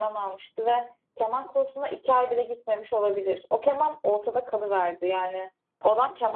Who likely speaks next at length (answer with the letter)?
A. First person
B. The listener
A